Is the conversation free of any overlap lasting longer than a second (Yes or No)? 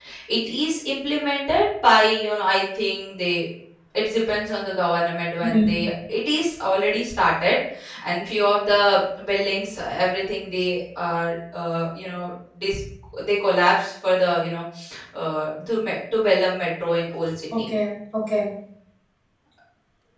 Yes